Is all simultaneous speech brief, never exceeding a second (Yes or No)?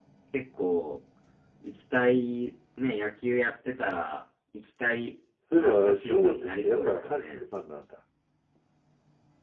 No